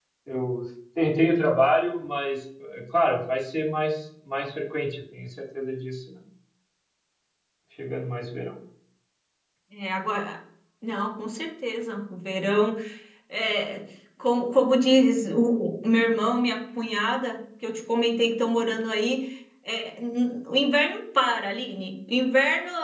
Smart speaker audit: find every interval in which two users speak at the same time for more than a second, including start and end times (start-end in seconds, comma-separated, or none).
none